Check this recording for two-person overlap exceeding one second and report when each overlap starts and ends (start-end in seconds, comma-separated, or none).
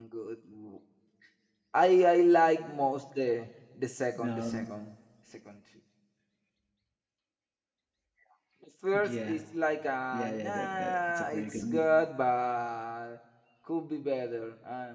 10.1-11.9